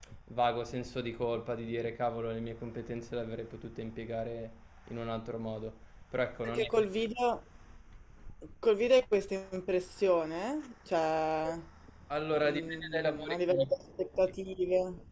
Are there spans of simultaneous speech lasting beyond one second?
Yes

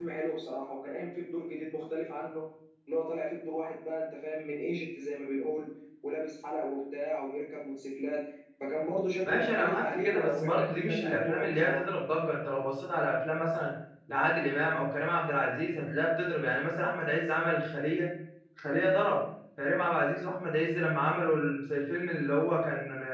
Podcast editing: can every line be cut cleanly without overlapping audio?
No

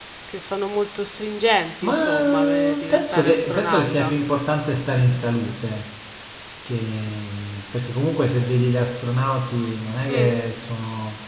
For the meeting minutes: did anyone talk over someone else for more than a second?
Yes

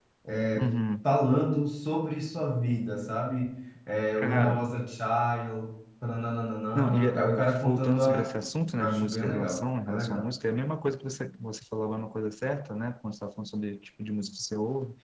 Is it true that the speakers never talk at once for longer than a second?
No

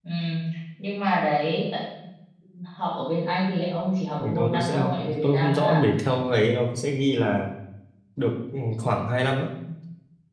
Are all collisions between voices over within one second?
No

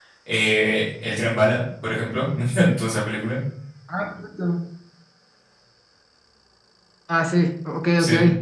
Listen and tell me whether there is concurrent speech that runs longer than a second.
No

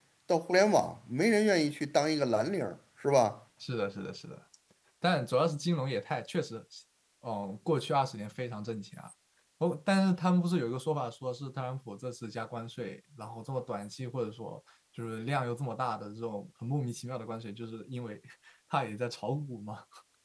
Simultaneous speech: No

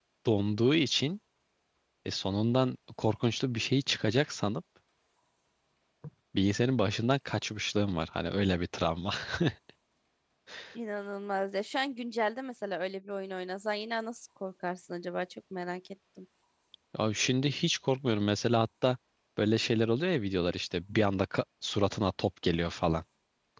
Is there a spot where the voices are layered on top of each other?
No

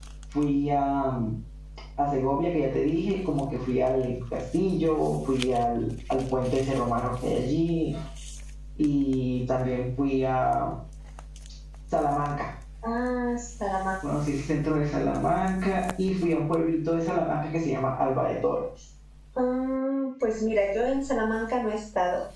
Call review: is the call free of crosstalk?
Yes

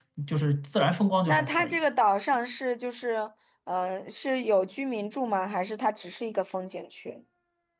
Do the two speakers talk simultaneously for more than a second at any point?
No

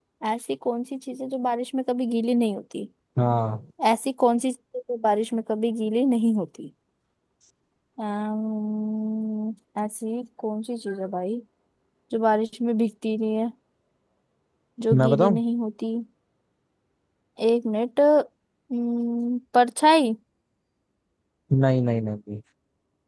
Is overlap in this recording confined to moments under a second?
Yes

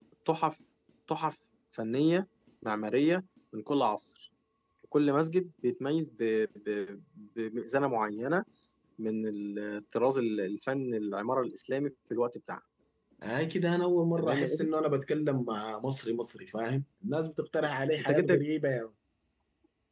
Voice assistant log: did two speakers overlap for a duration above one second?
No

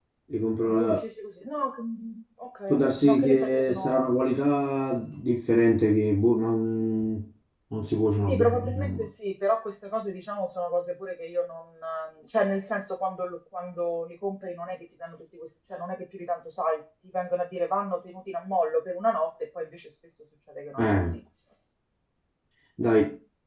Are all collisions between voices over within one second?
No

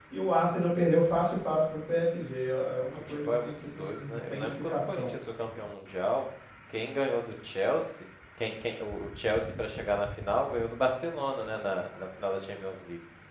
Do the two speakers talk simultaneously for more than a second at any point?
Yes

